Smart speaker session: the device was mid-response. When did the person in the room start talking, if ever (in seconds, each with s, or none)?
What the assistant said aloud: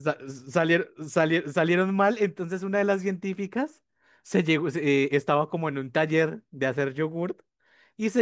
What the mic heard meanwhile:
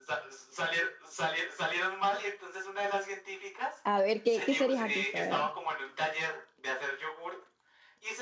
3.9 s